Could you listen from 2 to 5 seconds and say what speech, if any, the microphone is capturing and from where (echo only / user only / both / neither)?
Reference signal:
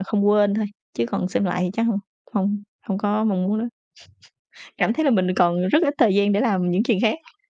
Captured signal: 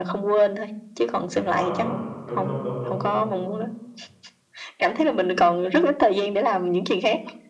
both